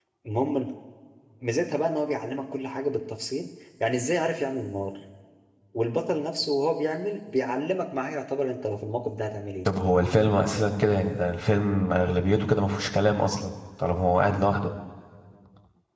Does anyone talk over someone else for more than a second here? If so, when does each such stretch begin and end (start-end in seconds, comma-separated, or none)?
none